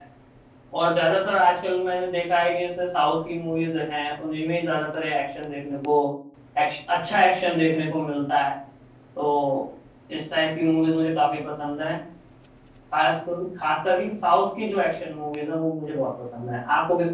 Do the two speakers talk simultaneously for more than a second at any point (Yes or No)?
No